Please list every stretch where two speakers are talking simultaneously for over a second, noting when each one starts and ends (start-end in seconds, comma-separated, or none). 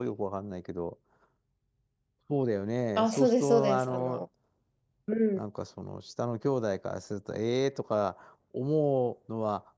3.0-4.2